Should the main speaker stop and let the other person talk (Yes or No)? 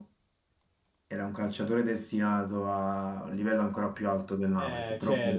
Yes